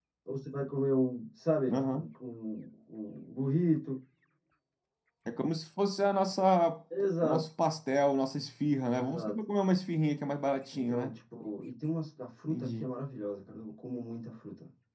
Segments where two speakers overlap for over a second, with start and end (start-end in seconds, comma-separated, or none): none